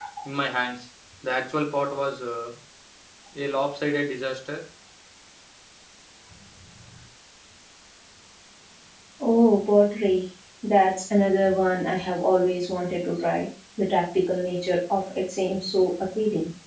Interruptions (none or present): none